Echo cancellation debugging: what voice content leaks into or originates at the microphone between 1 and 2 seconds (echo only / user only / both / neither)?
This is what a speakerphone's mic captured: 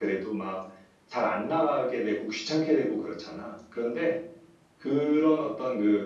user only